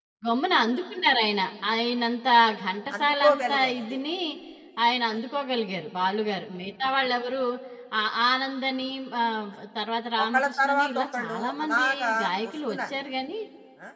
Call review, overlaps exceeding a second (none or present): present